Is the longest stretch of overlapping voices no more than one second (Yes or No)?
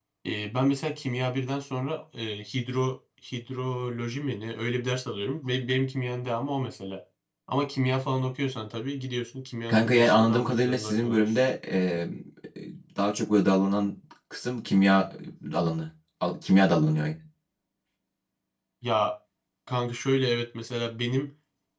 No